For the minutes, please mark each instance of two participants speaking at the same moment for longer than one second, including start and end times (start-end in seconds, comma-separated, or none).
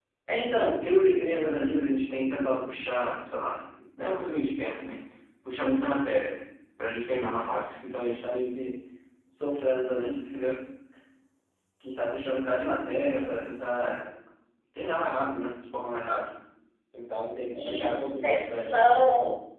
17.5-18.8